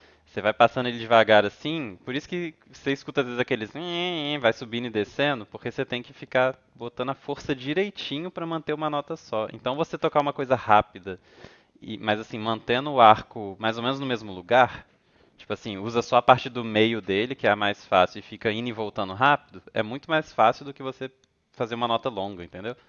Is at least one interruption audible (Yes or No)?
No